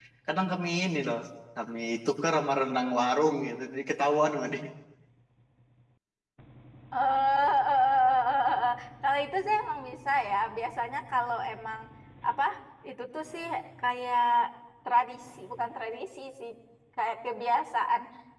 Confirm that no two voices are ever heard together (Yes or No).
Yes